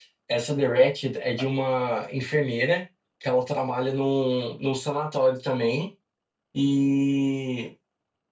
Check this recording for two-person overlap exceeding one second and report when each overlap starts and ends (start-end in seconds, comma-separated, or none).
none